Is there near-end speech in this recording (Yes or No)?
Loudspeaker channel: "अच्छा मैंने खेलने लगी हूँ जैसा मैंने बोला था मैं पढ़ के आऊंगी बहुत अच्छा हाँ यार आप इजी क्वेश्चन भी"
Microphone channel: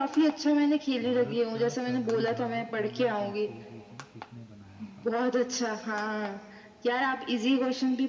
Yes